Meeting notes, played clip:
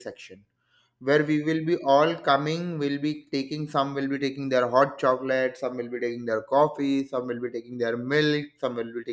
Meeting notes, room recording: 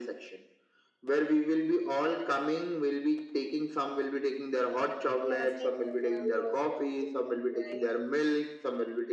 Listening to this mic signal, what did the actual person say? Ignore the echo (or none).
Yeah, same. Yeah, we also used to do that. Yeah, yeah,